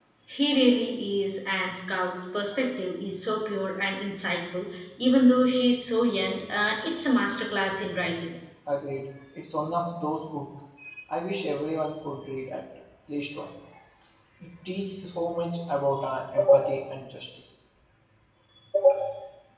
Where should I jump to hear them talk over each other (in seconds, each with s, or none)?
none